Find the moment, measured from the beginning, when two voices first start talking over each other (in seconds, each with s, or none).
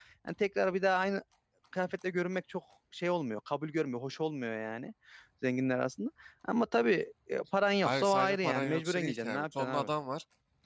7.8 s